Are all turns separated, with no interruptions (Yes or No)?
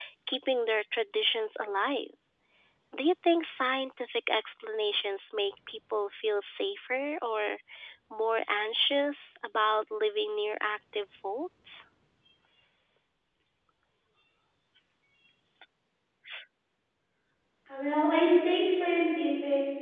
Yes